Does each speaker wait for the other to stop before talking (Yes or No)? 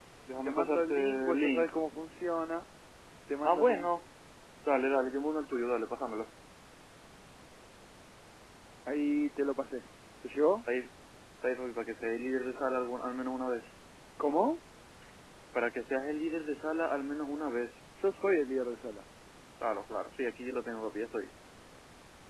No